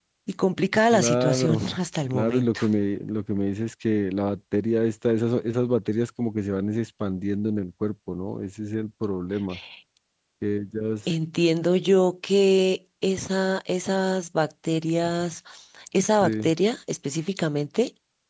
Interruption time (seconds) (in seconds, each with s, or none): 0.9 s